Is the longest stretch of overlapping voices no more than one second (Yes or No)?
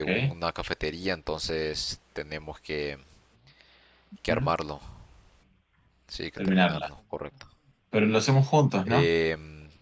Yes